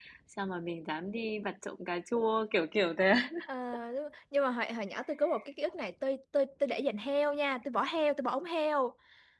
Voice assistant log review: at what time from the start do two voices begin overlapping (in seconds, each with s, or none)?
none